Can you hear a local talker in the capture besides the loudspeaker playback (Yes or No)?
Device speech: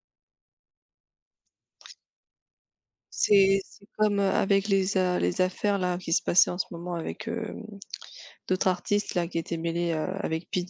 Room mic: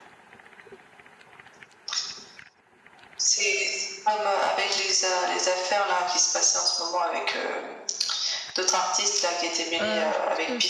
Yes